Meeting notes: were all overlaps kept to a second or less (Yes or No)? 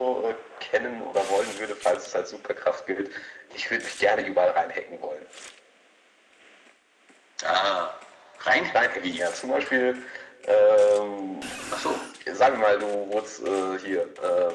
Yes